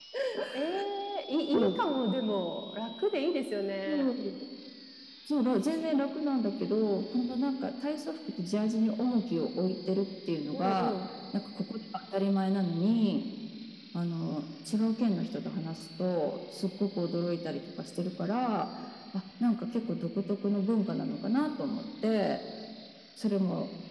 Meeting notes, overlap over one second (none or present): none